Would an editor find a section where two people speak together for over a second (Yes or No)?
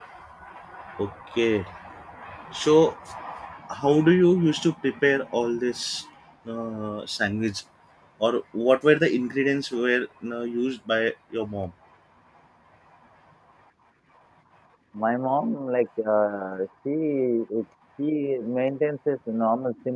No